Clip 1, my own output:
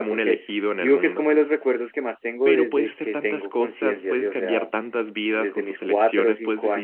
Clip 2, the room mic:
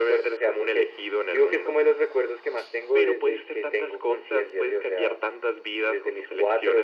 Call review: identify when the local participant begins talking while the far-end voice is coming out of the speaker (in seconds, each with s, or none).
none